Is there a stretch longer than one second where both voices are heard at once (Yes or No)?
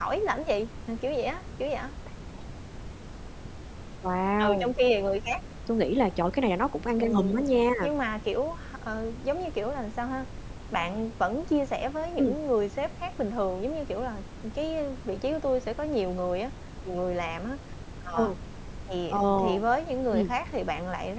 No